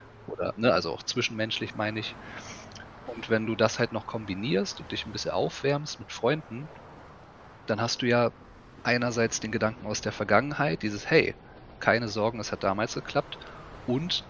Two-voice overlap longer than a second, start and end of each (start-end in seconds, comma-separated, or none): none